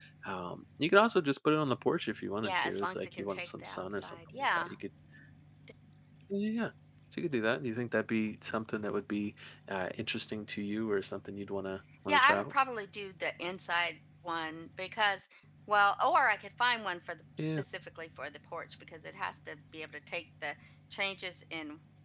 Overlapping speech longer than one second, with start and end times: 2.4-4.8

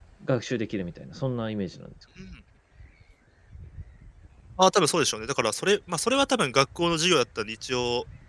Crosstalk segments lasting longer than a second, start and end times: none

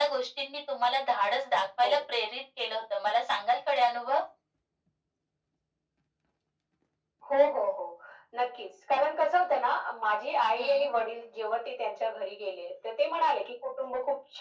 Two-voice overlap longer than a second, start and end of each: none

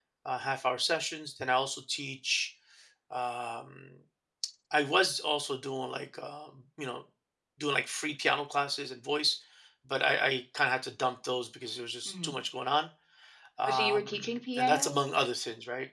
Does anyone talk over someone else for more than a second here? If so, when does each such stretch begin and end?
13.7-15.0

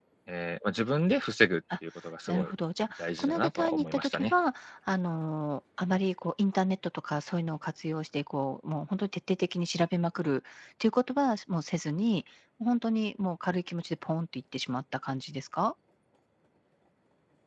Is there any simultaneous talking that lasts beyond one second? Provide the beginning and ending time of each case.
3.0-4.3

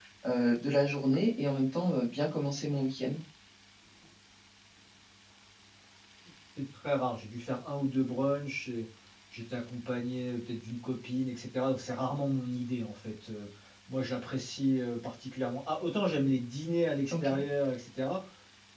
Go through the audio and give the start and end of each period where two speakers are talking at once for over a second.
none

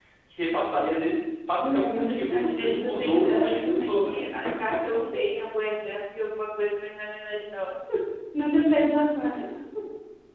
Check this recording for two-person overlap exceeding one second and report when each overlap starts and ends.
1.6-4.2

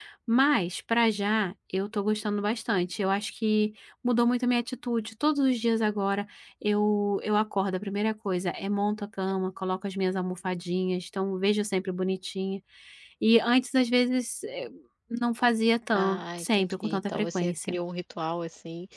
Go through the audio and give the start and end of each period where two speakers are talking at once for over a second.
15.9-17.8

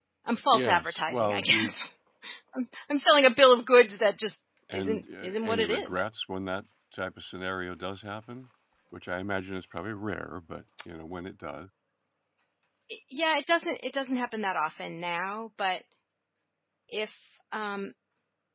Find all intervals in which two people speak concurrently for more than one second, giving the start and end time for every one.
0.5-1.7, 4.7-6.1

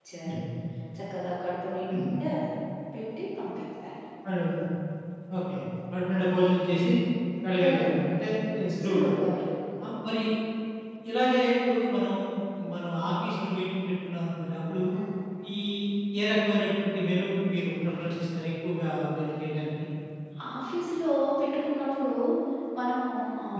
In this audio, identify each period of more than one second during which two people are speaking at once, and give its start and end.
none

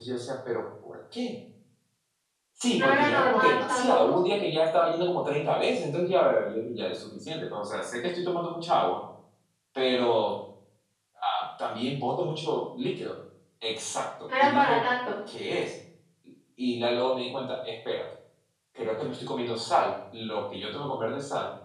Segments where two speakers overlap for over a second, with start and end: 2.8-4.0

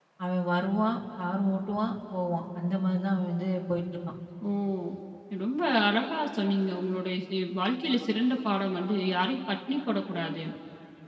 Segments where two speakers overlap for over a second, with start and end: none

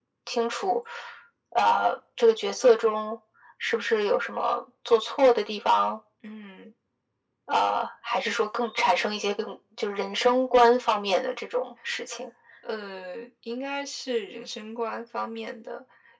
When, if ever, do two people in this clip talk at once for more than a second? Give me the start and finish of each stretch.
none

